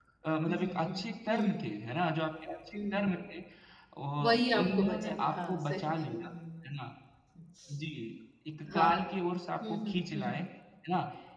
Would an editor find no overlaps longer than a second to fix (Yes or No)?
No